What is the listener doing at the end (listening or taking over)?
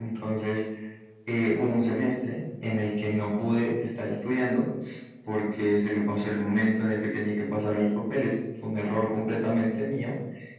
listening